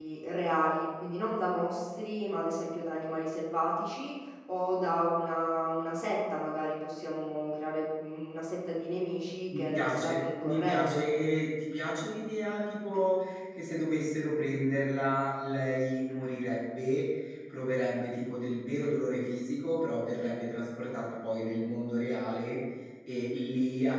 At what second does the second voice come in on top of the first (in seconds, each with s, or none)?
9.5 s